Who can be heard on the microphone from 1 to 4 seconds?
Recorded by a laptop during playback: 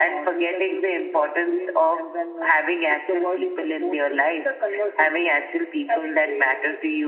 echo only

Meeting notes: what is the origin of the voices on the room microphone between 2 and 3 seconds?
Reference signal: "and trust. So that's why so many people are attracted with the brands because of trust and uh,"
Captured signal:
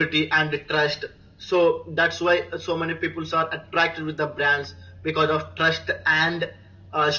echo only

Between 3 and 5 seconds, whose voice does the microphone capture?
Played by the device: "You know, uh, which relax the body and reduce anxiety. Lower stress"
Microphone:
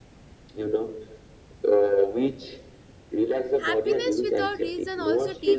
both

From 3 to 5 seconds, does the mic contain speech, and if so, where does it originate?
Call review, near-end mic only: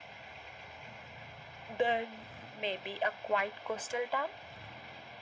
echo only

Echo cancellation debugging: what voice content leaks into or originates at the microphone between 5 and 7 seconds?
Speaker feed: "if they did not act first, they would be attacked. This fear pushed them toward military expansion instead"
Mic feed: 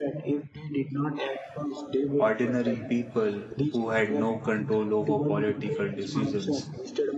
both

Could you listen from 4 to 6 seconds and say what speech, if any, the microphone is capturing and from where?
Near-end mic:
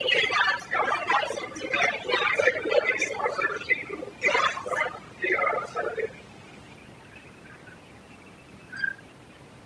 echo only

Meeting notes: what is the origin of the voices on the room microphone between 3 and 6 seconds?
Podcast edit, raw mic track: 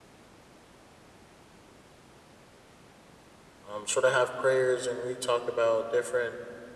user only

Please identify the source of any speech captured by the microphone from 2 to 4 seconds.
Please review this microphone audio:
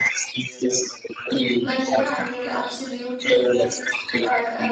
both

